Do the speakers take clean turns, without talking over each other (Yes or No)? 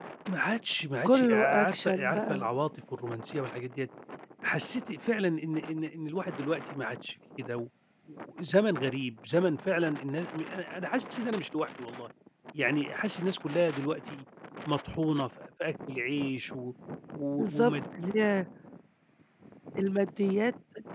No